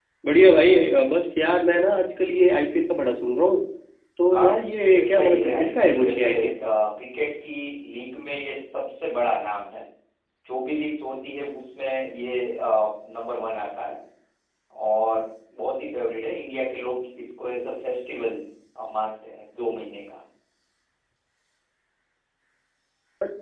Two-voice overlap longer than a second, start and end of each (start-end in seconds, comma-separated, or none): 4.3-6.6